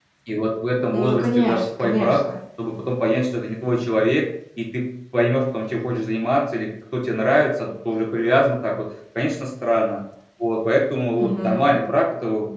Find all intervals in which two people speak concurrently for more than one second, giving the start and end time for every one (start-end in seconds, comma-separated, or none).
0.9-2.2